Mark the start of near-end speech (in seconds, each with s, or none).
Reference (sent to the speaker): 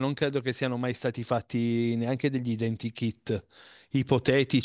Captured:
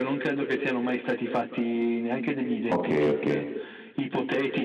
2.6 s